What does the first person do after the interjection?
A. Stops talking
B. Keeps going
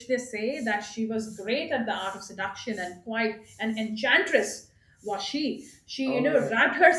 B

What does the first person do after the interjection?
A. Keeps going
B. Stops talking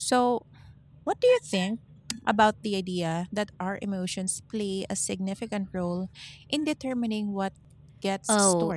B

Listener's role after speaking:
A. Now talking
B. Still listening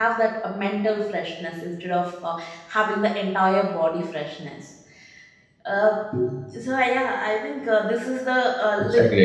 B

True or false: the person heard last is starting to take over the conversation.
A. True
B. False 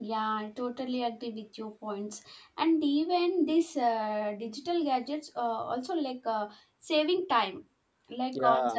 B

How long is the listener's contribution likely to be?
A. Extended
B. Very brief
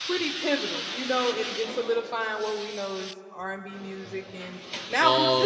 B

